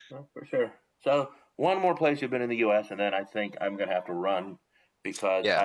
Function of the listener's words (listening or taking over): listening